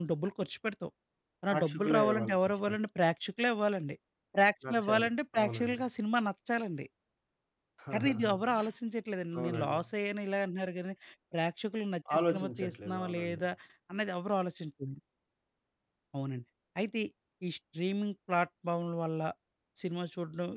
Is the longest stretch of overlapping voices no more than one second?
No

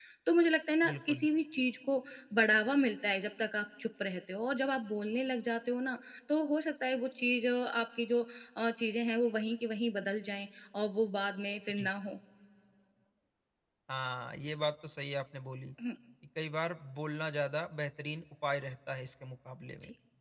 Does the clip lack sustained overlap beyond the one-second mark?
Yes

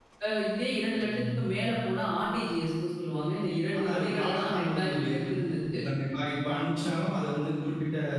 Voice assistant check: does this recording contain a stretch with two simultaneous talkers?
Yes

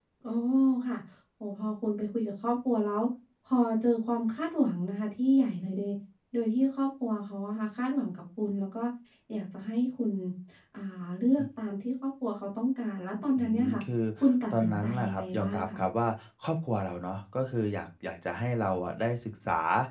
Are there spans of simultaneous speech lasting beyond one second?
Yes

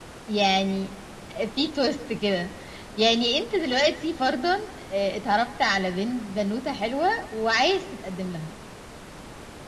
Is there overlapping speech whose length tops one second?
No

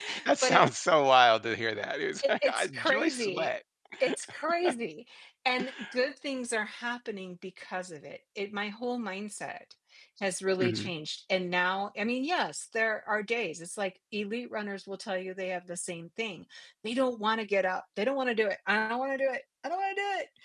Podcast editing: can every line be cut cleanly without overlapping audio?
No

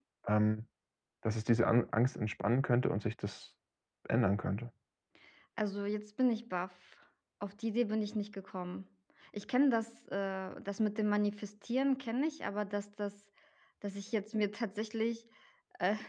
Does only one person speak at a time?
Yes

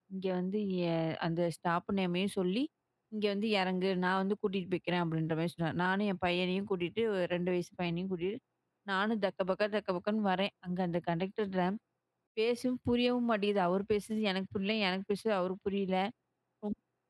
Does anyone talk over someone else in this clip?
No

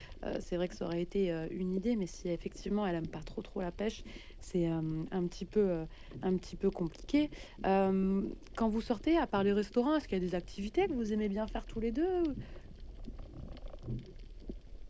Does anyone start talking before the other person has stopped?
No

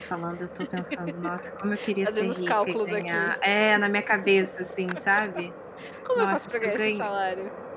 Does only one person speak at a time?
No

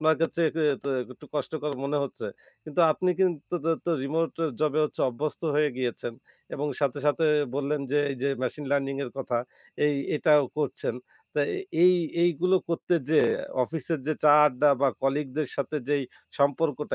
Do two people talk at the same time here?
No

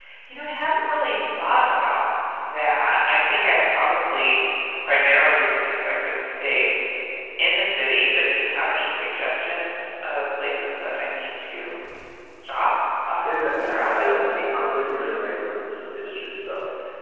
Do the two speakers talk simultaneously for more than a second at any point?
Yes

